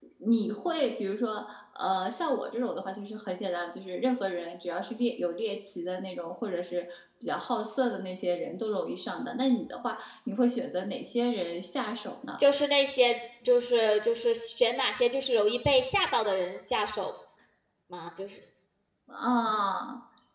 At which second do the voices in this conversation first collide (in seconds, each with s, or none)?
none